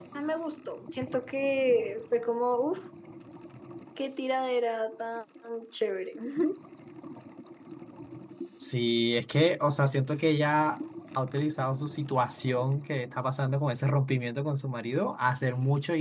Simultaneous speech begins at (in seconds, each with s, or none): none